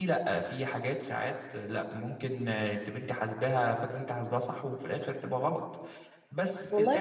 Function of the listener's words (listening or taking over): taking over